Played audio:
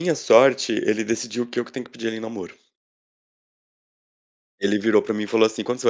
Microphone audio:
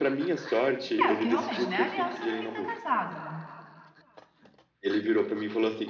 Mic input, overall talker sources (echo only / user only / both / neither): both